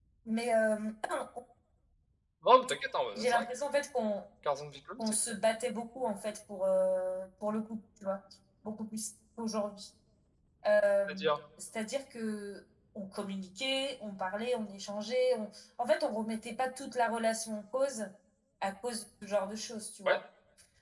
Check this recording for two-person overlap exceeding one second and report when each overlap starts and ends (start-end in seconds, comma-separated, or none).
none